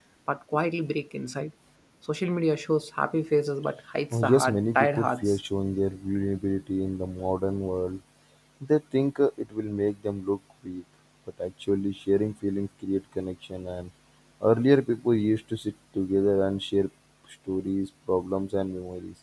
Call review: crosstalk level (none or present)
present